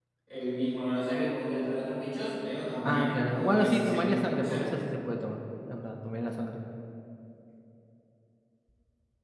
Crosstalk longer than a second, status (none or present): present